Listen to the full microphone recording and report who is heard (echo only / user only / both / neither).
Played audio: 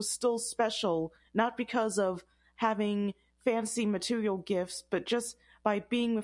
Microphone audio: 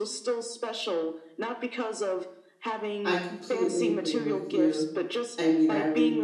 both